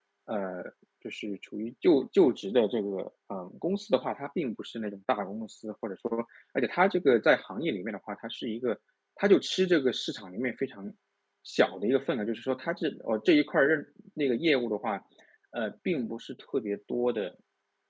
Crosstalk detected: No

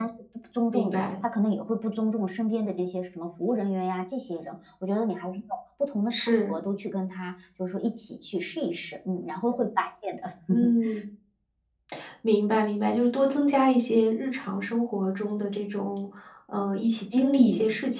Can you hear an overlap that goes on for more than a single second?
No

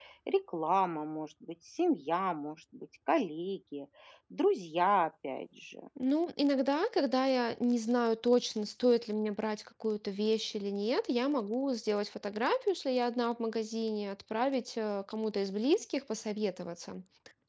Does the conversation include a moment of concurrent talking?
No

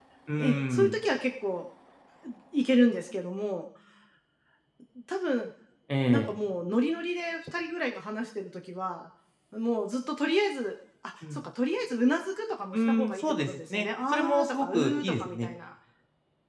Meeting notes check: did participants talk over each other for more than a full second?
Yes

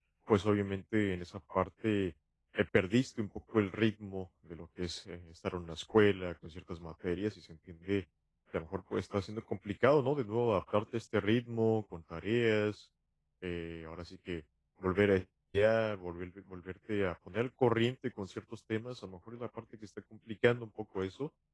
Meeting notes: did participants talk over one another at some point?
No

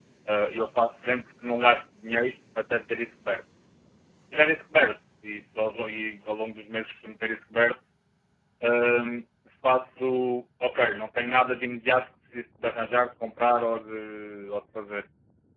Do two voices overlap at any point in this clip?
No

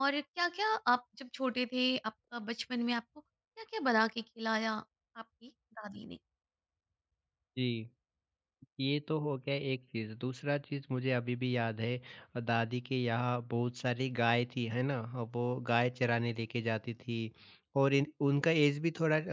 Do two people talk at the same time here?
No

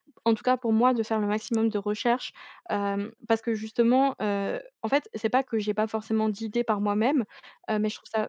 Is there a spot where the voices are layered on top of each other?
No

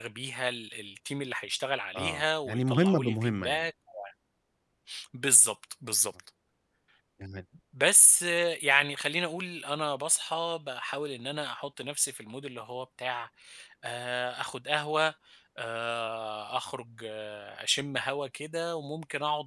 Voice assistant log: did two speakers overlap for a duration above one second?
Yes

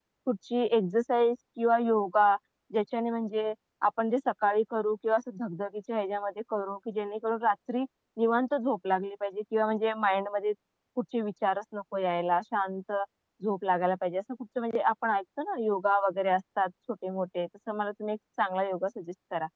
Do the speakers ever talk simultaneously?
No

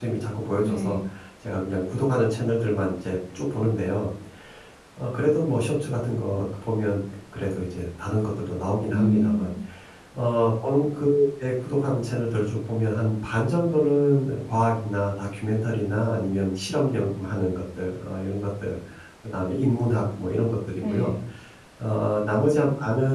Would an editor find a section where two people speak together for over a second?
No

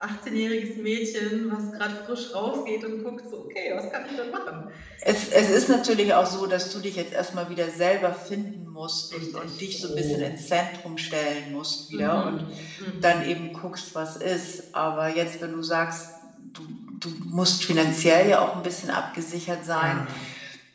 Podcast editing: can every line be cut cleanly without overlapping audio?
No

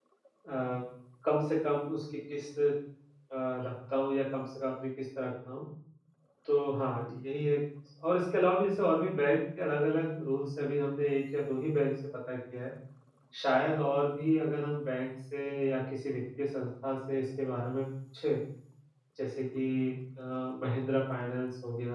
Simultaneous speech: No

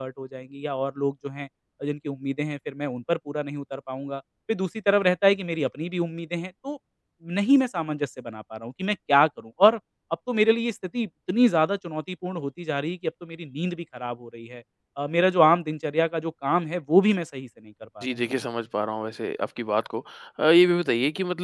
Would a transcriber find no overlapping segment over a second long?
Yes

